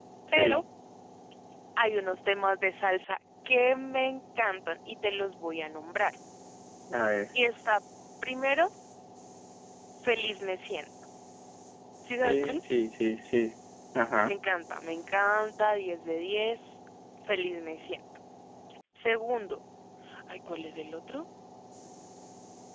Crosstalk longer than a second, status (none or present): none